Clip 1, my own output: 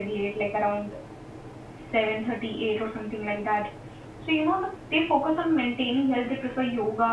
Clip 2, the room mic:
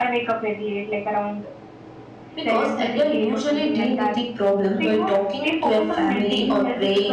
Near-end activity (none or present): present